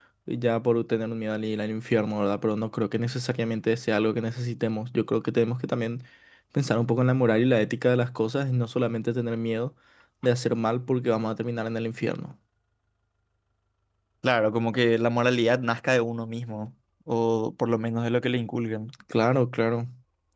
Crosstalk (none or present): none